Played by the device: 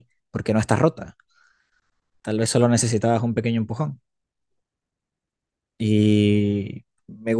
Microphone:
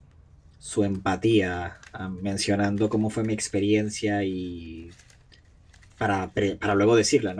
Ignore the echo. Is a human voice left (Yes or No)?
Yes